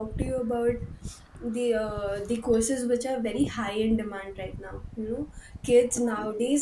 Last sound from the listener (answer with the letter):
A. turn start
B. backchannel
B